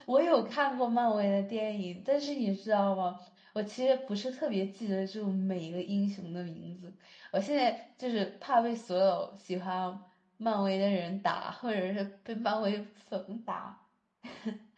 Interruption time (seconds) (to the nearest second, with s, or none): none